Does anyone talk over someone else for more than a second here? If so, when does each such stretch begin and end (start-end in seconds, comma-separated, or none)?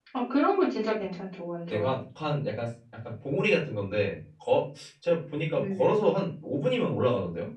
none